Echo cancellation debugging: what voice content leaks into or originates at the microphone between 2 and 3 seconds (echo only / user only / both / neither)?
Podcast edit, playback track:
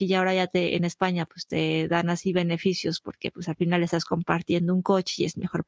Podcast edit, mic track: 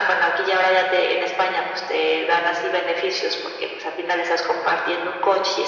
echo only